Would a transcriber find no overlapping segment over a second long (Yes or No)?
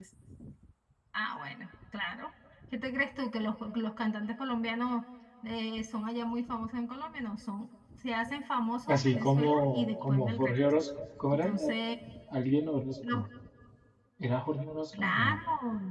No